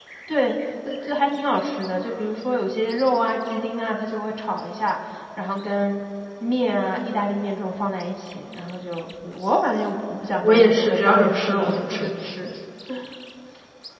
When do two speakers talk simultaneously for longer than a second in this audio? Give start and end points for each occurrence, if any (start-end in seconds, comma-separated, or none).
10.4-12.1